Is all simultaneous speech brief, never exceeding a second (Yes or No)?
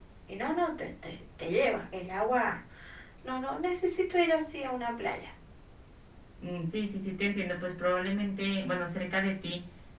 Yes